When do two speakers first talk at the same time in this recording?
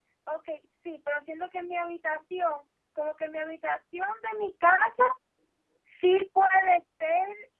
none

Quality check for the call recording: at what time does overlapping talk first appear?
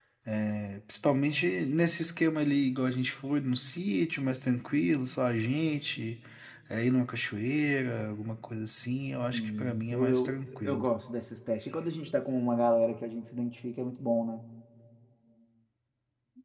9.3 s

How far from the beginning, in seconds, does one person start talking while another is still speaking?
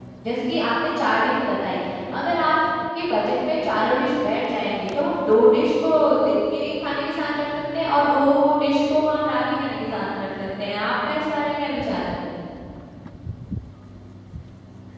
none

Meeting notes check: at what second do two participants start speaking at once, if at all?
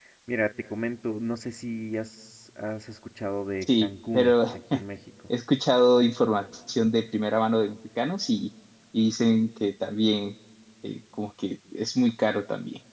3.6 s

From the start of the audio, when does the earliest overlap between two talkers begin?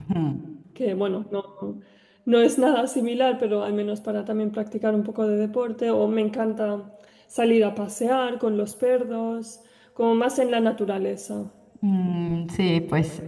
none

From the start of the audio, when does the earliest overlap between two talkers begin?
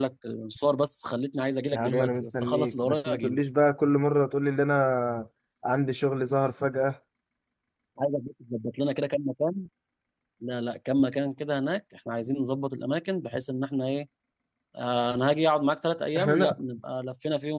1.7 s

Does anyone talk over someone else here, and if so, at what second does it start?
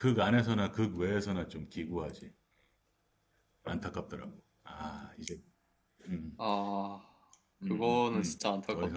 7.6 s

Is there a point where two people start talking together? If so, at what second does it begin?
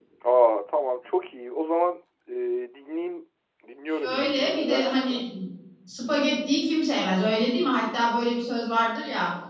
3.9 s

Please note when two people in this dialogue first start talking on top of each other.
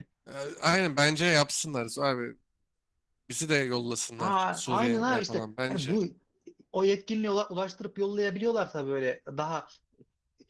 4.2 s

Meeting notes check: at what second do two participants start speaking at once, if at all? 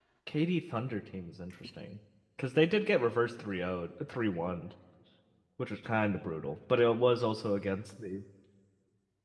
none

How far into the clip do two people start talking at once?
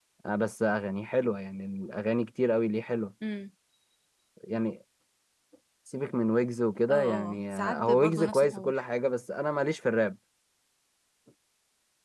6.9 s

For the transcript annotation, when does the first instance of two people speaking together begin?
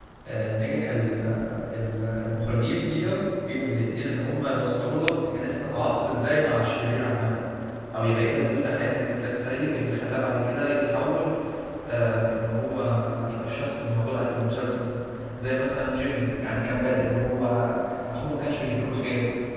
none

